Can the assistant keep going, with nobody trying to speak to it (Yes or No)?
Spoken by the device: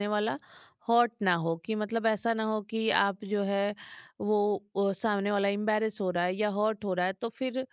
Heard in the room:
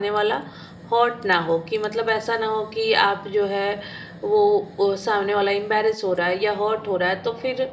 Yes